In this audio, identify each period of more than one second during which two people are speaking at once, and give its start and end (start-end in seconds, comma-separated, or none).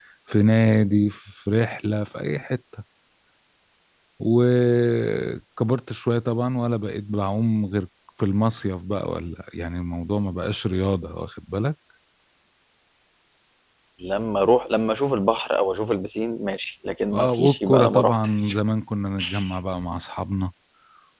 17.1-18.6